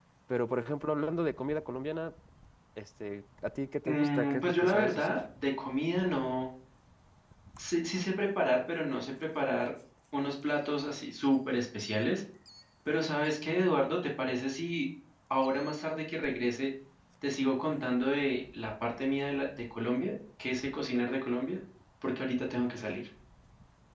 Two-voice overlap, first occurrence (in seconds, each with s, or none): 3.8 s